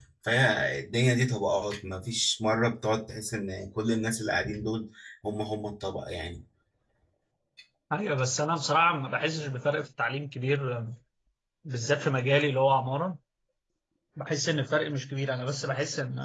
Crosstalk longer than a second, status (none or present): none